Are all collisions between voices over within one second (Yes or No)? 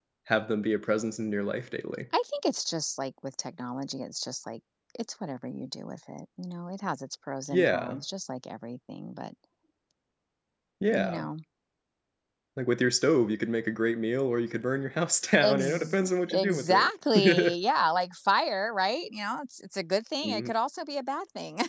No